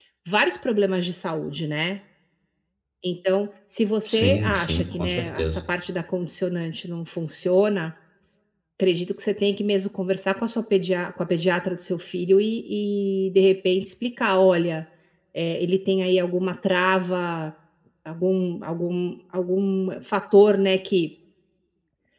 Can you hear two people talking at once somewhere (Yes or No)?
Yes